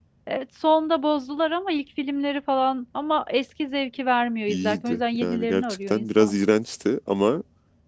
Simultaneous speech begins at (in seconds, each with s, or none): 4.5 s